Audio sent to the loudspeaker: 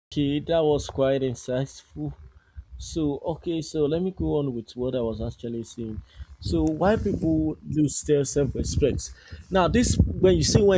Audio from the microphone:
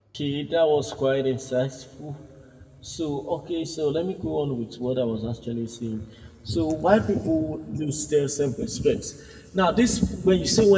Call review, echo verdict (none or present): present